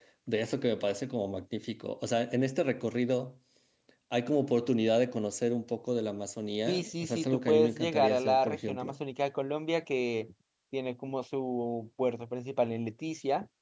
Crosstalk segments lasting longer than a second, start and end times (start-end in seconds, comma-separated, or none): 6.7-8.9